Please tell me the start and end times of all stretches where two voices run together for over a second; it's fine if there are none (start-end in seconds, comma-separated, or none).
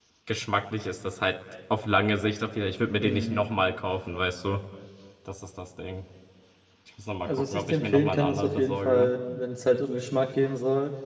7.2-9.1